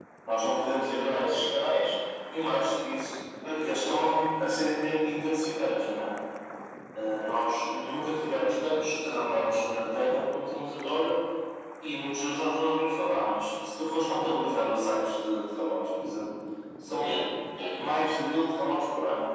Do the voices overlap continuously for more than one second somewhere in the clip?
No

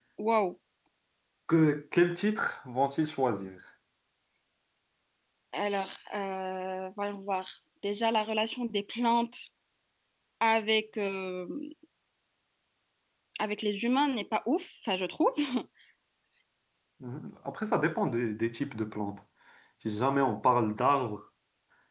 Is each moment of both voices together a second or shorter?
Yes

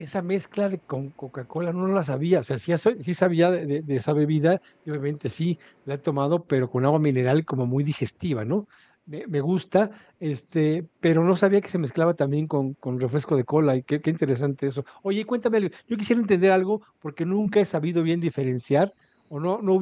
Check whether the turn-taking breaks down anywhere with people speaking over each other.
No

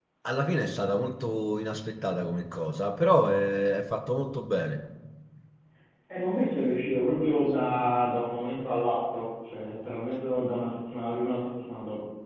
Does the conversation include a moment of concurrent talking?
No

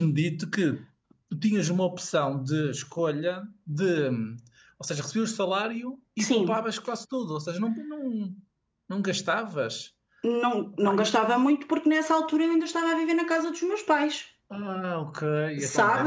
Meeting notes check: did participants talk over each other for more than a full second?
No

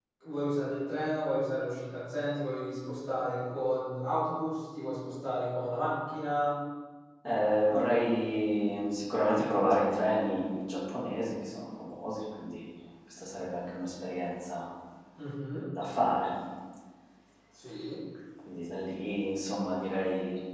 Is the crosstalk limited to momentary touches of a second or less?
Yes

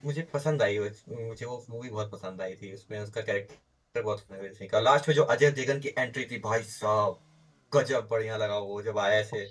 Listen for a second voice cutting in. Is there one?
No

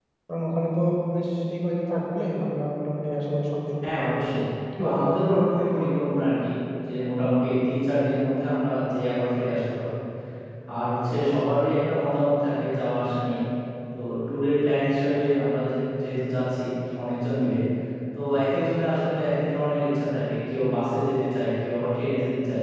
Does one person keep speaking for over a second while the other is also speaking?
No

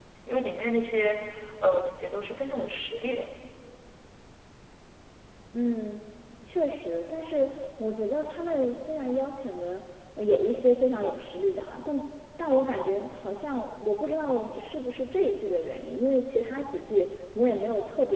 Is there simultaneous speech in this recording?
No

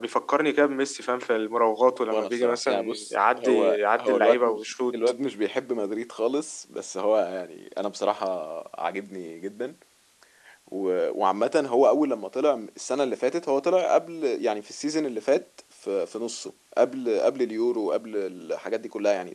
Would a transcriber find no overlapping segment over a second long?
No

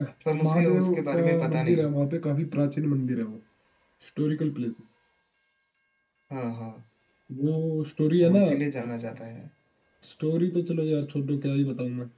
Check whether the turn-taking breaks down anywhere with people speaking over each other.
Yes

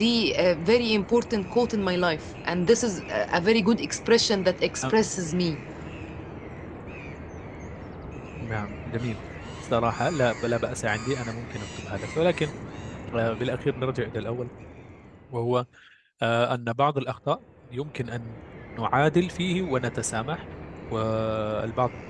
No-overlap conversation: Yes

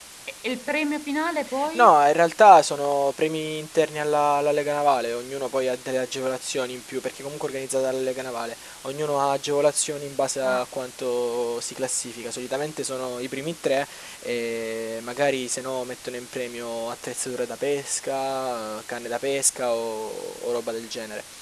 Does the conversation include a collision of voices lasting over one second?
No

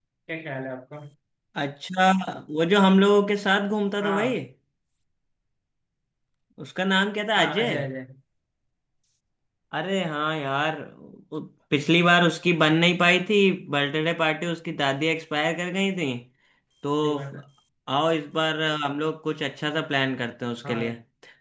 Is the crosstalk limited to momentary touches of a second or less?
Yes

